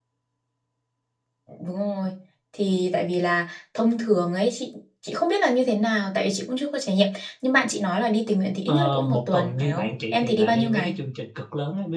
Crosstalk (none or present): present